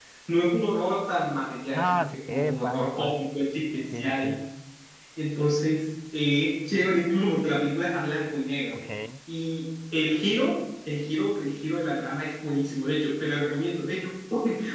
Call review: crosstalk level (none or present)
present